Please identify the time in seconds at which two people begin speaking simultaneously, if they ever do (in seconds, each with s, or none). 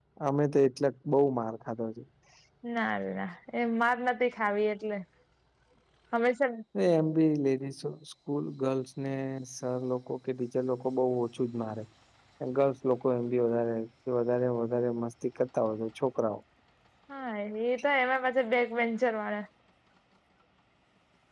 none